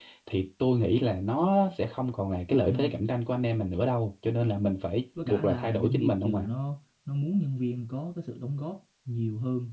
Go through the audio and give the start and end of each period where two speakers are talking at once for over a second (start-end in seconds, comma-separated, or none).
5.2-6.5